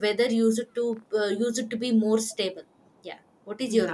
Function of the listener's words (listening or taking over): taking over